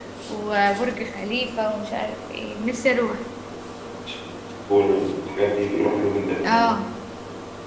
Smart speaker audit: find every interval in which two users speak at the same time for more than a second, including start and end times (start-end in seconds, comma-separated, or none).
none